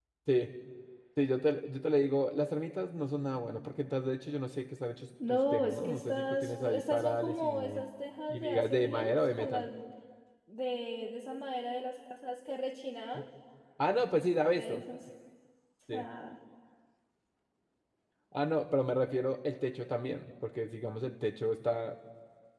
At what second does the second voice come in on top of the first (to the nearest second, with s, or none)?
5 s